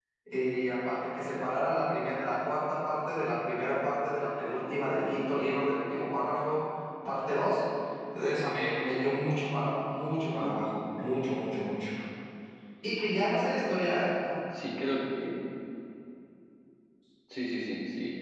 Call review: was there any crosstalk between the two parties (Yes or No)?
No